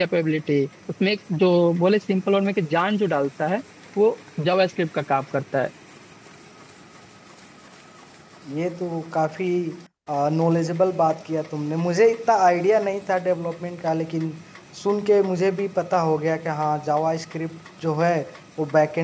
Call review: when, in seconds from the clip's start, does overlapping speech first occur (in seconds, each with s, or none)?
none